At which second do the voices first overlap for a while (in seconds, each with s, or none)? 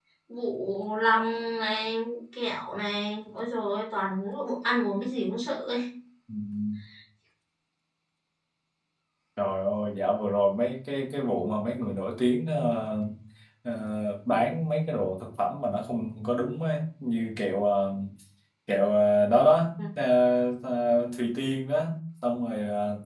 none